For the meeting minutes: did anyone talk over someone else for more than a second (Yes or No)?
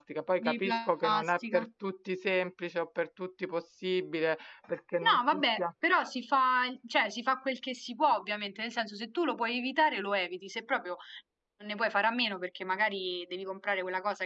Yes